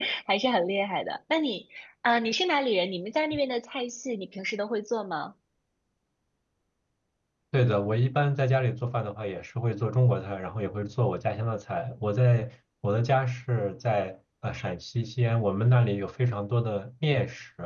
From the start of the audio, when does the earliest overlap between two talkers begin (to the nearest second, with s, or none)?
none